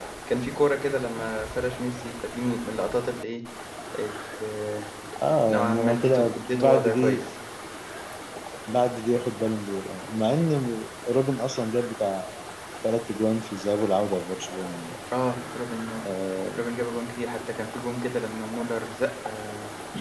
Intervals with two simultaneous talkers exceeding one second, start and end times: 5.5-7.2

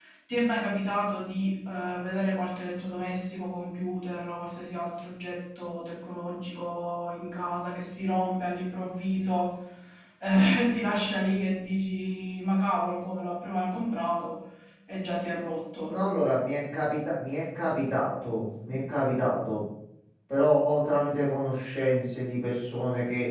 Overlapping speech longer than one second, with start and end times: none

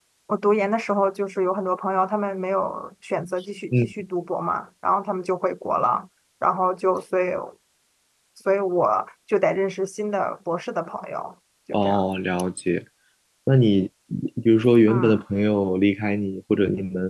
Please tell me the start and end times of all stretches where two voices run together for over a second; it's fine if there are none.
none

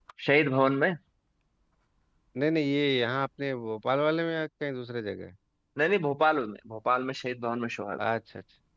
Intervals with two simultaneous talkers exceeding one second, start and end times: none

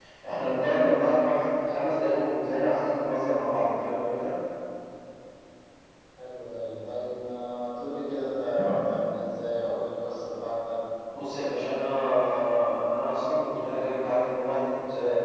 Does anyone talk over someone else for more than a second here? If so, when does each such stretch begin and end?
none

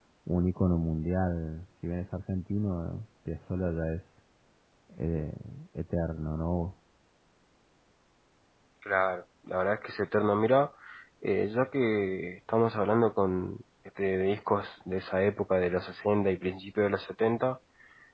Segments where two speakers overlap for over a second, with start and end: none

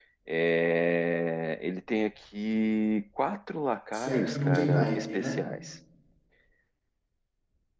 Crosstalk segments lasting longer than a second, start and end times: 3.9-5.4

